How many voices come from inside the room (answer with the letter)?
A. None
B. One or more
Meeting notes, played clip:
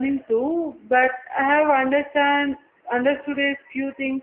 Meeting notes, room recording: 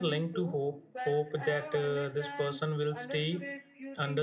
B